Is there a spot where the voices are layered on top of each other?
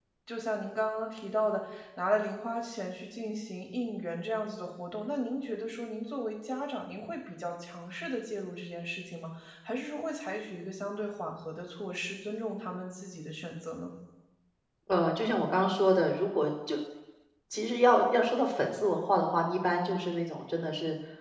No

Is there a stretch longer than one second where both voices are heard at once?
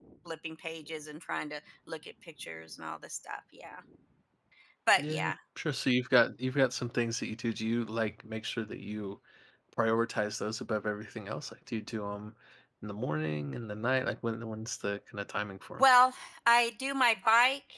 No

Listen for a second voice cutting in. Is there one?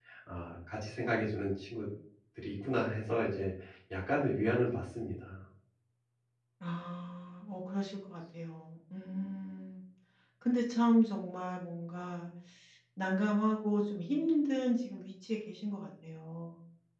No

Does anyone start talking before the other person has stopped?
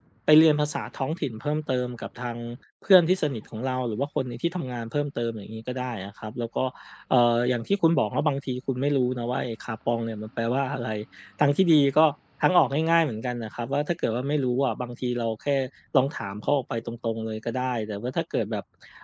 No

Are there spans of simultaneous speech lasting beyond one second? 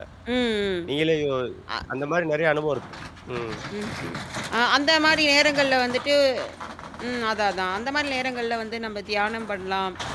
No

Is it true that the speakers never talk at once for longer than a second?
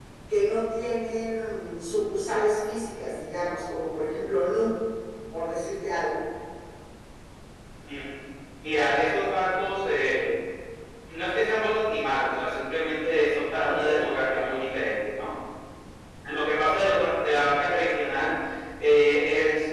Yes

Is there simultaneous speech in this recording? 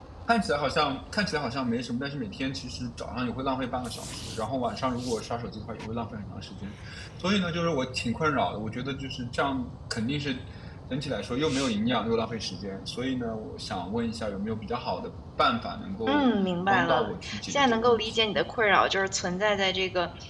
Yes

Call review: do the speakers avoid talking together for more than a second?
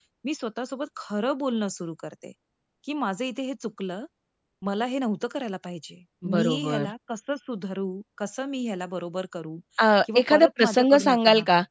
No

